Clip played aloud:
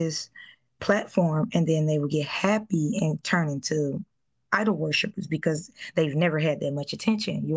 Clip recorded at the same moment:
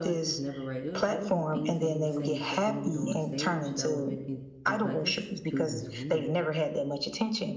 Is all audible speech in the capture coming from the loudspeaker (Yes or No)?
No